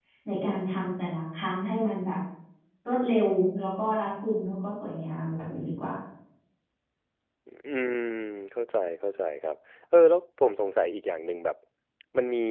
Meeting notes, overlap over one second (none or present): none